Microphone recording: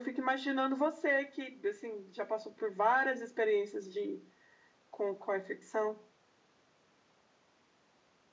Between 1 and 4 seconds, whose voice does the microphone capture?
echo only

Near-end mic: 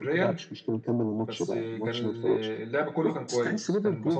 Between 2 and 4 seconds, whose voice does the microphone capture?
both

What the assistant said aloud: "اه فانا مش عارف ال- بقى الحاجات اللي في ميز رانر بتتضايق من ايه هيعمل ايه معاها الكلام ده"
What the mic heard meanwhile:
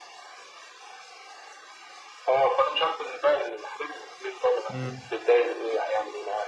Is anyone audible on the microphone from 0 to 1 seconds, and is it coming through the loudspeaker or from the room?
neither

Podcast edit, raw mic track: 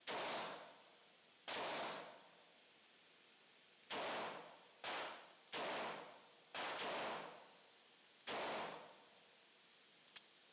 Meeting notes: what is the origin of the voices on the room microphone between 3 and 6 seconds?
neither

